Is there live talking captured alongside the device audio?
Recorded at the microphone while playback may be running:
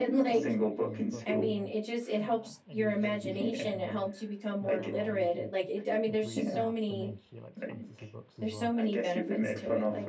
Yes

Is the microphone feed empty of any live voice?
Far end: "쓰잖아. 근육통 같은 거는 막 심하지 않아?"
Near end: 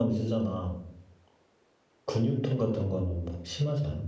Yes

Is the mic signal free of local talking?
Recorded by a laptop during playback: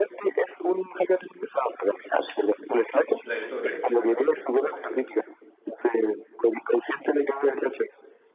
No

